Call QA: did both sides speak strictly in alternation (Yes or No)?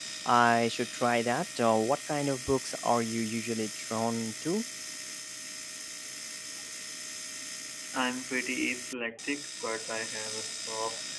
Yes